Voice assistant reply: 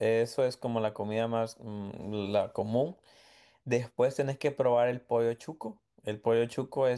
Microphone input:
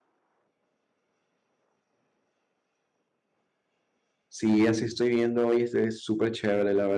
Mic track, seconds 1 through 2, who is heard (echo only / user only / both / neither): neither